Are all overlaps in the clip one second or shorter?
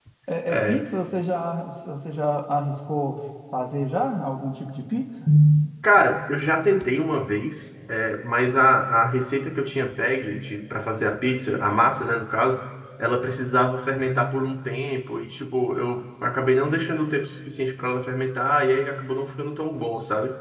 Yes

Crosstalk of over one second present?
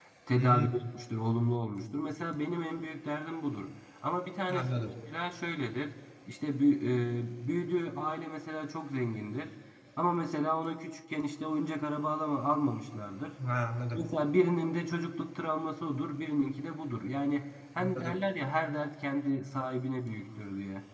No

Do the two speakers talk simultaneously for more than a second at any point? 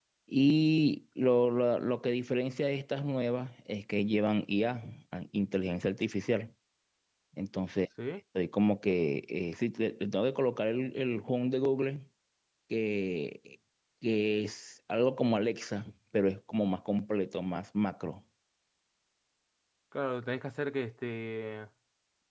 No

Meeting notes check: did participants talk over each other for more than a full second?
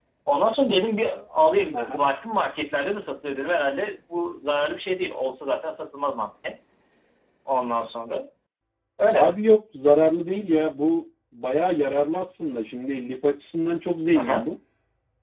No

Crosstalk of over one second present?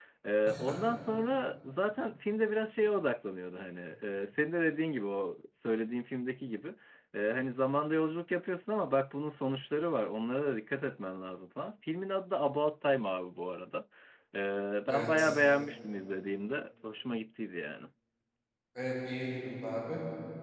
No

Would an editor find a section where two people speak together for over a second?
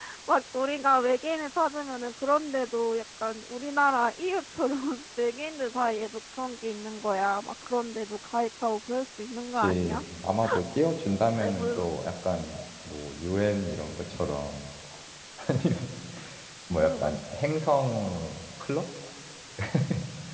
No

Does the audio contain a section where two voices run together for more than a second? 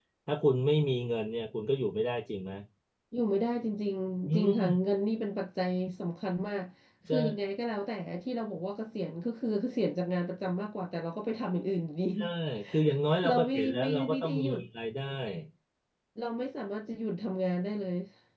Yes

